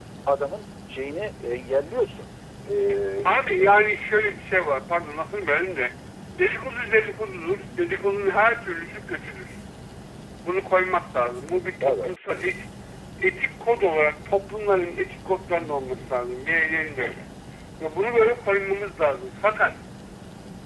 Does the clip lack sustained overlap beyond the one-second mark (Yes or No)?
Yes